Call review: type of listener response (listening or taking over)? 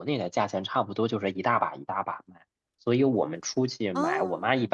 listening